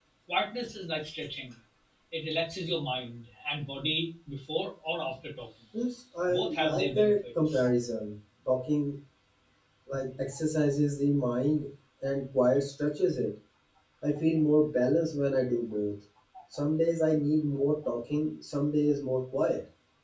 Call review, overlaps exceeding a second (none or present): present